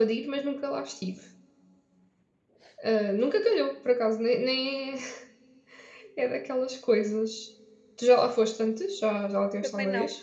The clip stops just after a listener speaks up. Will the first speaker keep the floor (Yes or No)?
No